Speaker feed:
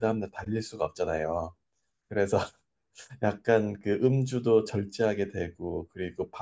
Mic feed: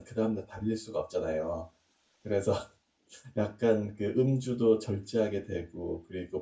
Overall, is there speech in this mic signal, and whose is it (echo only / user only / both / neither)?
echo only